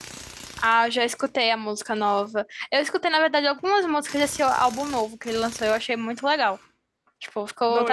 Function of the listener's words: listening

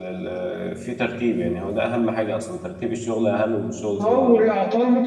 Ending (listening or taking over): taking over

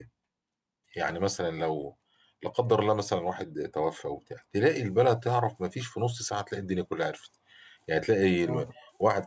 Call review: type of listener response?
listening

